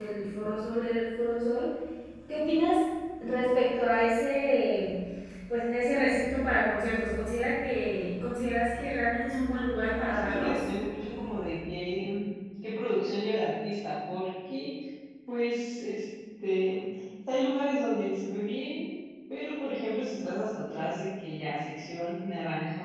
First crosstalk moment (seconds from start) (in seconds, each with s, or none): 9.4 s